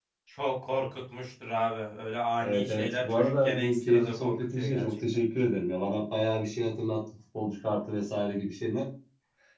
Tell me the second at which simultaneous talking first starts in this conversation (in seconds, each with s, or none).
2.4 s